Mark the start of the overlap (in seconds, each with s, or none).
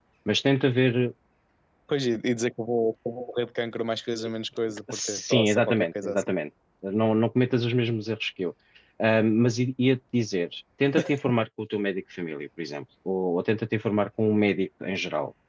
4.9 s